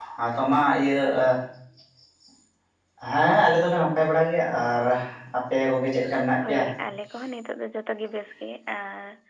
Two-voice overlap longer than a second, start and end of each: none

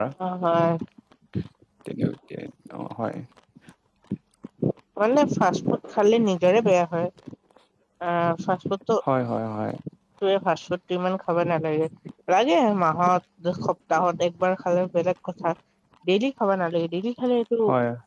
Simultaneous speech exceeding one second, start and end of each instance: none

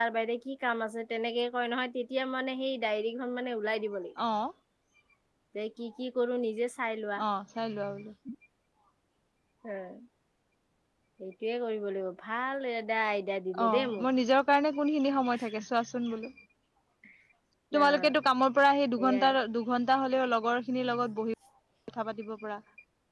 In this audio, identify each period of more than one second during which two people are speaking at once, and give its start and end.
none

